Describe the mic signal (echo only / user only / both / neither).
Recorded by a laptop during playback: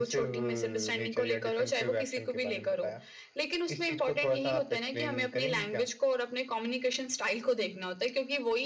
echo only